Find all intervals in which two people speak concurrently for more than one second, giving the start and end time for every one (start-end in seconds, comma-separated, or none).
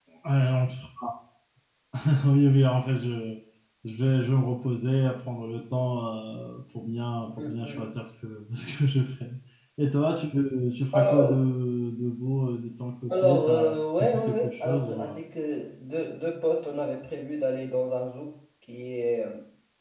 13.1-15.2